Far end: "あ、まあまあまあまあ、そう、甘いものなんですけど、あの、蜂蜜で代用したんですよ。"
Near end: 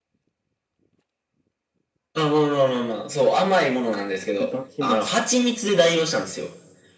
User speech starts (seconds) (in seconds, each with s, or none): 4.3 s